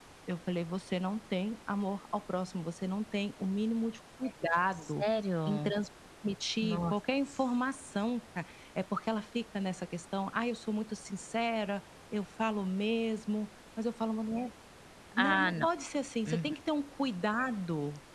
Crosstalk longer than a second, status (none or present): none